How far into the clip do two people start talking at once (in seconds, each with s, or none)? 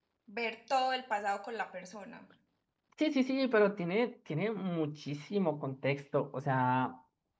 none